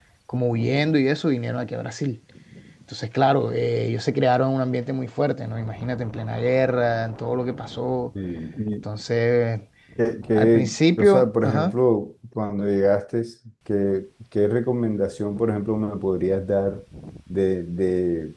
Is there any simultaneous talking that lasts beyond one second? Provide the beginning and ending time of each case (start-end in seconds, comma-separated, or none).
10.3-11.7